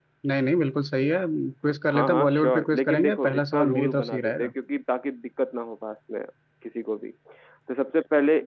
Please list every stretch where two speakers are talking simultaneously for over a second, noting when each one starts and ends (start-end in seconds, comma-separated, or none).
1.9-4.5